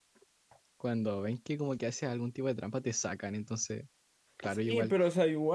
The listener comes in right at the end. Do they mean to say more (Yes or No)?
Yes